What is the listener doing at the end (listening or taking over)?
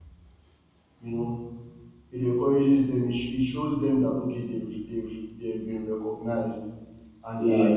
listening